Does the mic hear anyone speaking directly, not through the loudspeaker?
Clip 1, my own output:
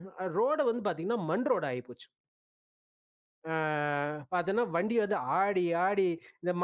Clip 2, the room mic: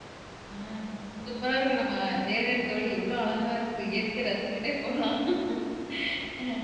Yes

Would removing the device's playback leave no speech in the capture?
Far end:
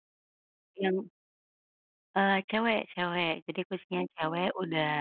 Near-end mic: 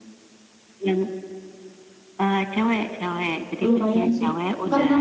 No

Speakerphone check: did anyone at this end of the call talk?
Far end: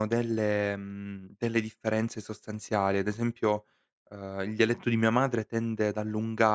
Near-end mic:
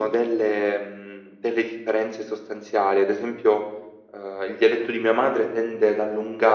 No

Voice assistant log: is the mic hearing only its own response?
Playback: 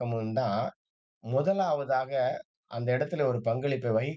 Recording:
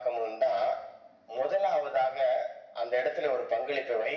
Yes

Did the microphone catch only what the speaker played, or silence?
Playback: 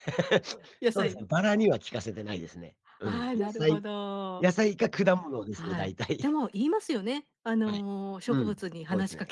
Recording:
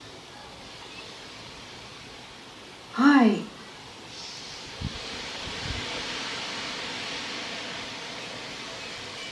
No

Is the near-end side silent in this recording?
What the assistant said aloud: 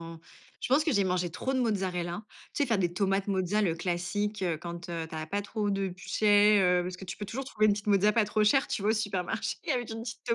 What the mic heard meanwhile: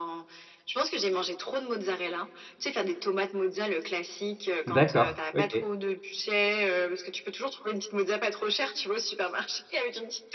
No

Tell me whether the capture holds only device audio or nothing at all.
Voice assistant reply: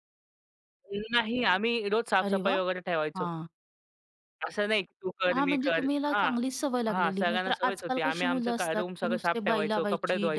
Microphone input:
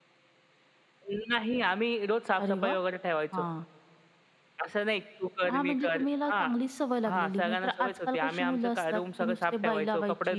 Yes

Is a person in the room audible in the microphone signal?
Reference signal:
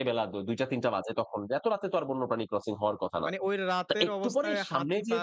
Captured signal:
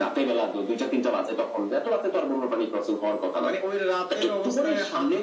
No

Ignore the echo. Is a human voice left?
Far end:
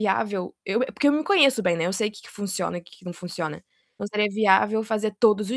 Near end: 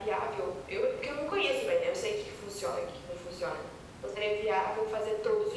No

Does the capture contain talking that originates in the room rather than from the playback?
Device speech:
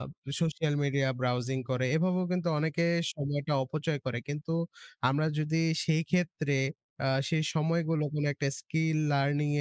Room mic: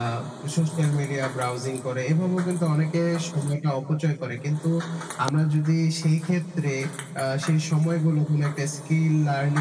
No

